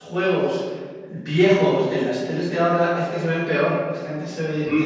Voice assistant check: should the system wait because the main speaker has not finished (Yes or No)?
Yes